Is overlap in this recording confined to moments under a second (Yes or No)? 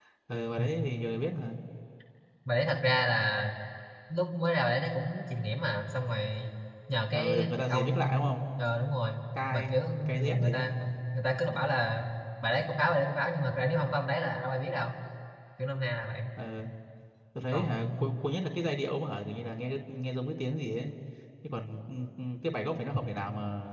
No